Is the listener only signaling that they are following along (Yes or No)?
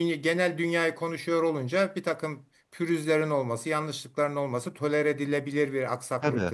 No